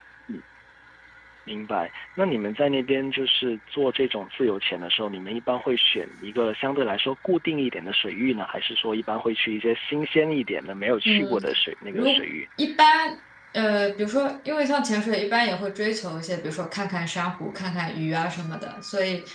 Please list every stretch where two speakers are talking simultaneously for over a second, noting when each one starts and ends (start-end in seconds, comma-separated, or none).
none